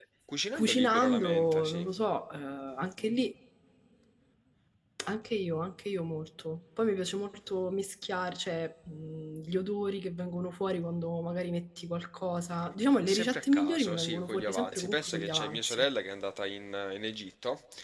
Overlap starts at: 0.5 s

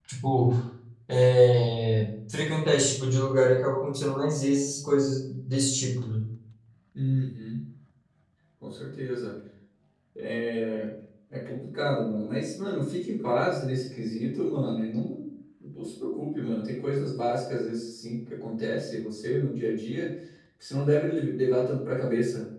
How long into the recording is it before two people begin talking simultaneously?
none

